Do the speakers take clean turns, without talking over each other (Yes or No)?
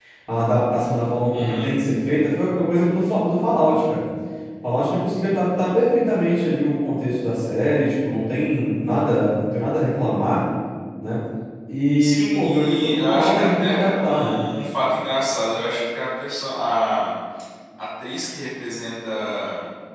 No